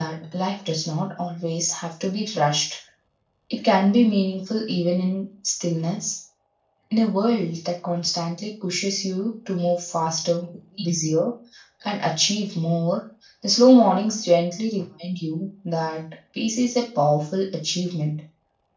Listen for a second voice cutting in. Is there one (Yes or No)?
No